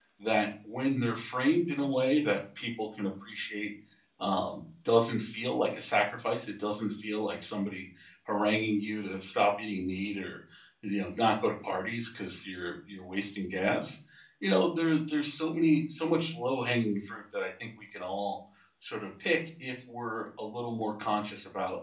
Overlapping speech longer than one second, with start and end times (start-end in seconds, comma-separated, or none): none